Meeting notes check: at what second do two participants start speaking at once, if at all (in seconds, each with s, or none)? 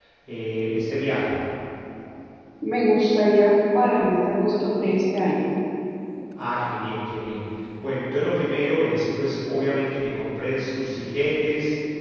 none